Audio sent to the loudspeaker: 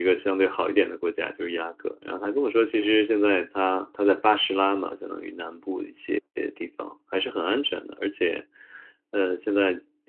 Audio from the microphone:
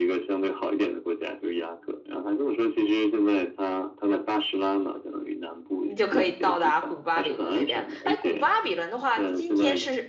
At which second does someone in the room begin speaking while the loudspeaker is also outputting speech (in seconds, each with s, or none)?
5.8 s